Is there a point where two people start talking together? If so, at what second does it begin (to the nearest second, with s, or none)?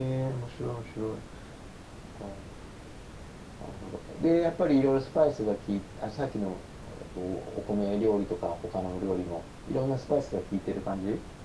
none